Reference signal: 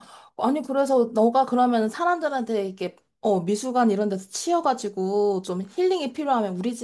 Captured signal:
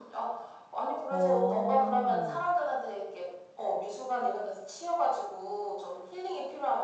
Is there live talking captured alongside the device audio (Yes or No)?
Yes